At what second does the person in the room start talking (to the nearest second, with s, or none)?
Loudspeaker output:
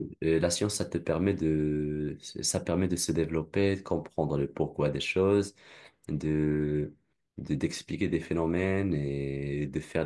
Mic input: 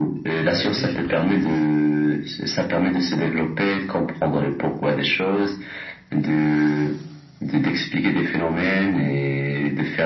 0 s